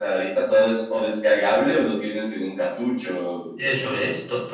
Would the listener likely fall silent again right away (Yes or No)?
No